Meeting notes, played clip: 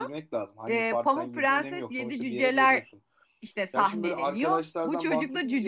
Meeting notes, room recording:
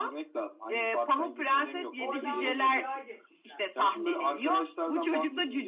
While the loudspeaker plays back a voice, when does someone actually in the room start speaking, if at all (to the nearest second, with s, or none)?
2 s